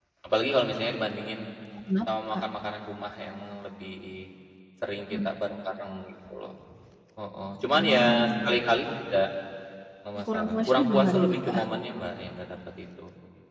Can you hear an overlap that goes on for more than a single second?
Yes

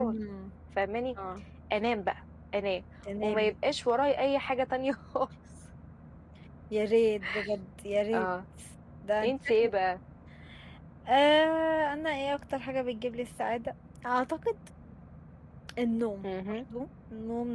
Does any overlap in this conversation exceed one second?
No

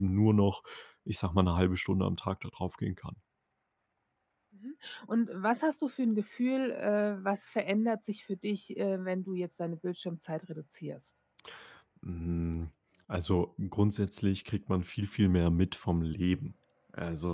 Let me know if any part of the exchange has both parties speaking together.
No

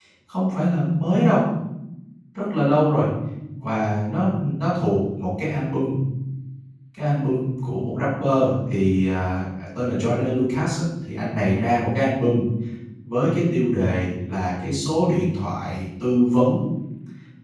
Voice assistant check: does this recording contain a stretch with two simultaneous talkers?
No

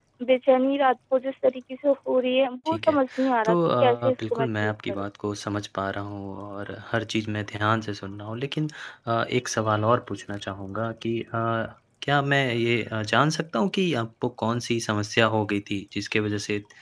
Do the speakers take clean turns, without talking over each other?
No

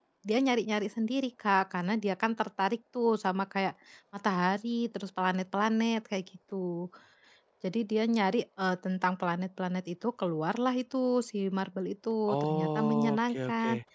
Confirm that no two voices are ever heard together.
No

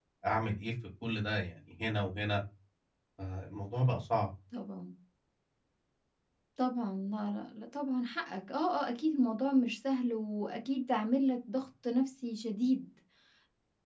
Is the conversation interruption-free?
Yes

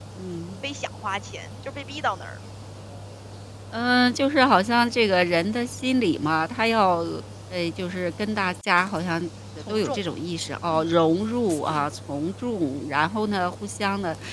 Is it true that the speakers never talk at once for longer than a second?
Yes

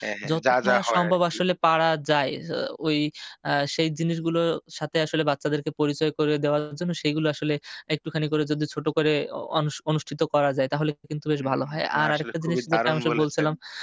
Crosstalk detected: Yes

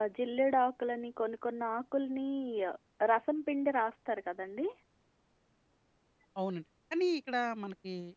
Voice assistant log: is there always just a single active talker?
Yes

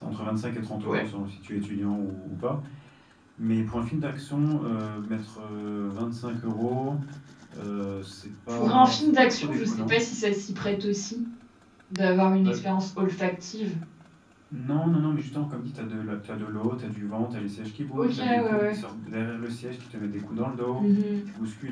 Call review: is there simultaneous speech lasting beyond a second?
Yes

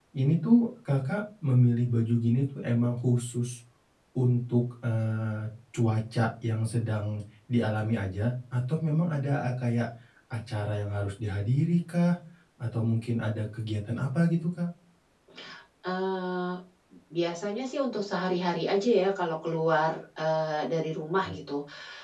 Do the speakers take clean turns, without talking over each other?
Yes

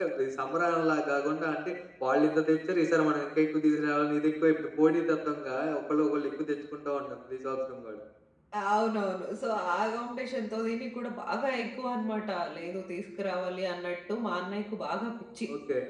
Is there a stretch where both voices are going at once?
No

